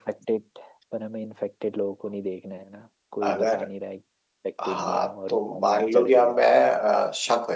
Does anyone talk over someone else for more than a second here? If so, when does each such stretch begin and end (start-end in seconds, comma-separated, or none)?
4.6-6.4